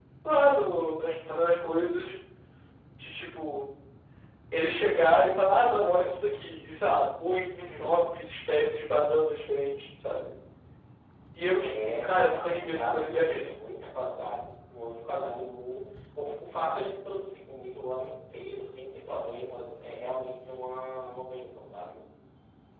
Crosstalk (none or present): present